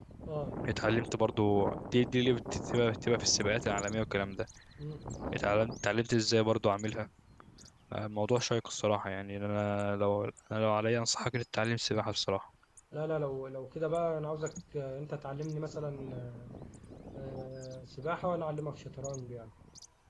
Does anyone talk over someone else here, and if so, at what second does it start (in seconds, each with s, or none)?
none